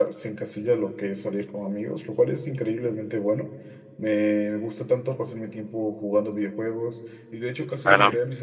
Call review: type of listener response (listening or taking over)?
listening